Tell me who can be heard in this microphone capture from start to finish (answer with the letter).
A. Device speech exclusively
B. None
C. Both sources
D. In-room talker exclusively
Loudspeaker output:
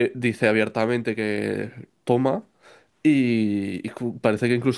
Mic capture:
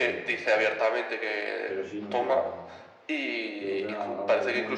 C